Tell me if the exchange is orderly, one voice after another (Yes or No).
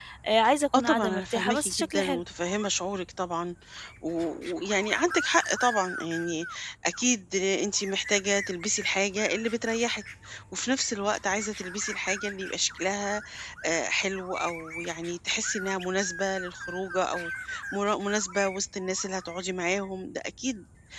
No